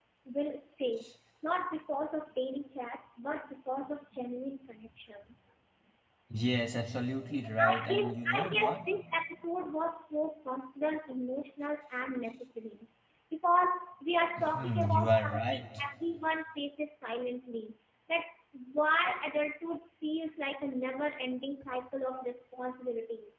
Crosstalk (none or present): present